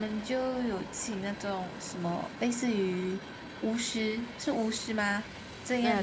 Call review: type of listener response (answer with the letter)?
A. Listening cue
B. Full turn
A